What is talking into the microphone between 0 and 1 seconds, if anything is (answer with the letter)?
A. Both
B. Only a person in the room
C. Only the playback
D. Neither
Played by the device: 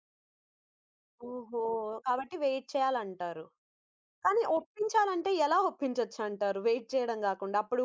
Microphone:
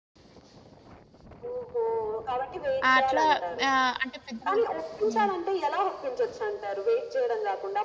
D